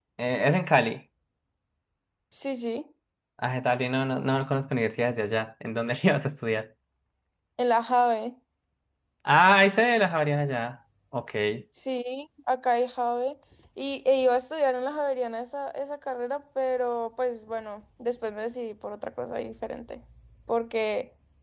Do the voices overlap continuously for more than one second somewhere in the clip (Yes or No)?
No